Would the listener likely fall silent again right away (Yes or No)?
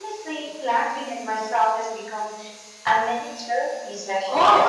No